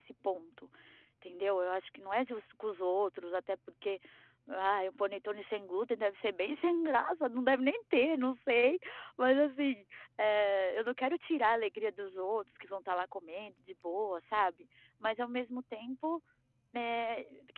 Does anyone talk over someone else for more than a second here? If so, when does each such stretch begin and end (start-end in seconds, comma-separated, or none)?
none